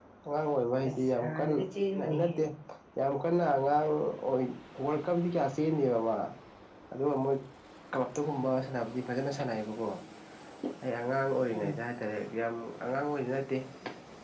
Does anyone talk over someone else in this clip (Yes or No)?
Yes